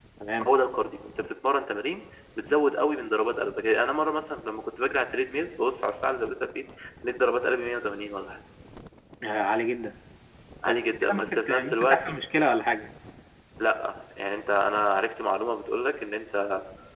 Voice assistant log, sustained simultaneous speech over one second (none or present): present